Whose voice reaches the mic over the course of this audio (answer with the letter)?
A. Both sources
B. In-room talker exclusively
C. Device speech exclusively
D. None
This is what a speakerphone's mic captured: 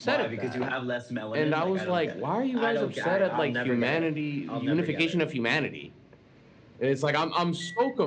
C